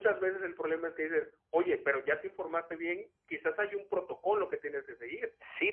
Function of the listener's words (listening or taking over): taking over